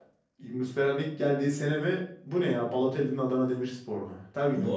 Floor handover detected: Yes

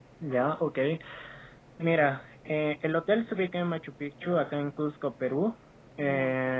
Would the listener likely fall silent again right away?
Yes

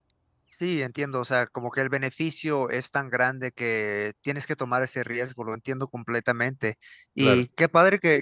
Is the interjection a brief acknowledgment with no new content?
Yes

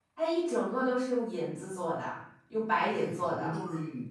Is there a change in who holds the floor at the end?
Yes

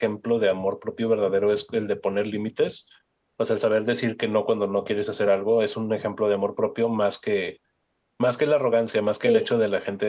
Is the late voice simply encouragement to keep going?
Yes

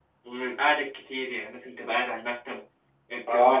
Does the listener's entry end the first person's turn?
Yes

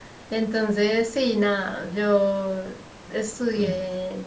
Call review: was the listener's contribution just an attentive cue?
Yes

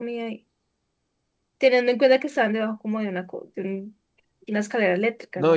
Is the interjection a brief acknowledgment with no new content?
No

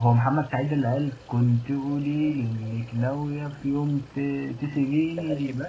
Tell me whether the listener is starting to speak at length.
Yes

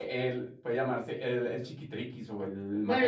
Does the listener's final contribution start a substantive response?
Yes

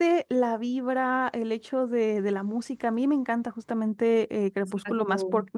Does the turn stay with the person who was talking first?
Yes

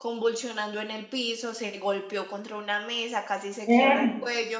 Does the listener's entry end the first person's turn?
No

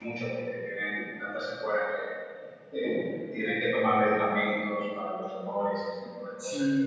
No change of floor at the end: No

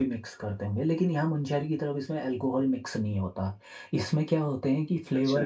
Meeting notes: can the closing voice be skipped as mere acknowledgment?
Yes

